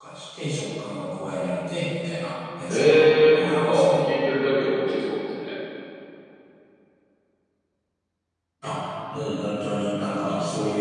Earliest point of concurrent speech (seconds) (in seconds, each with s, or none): 2.7 s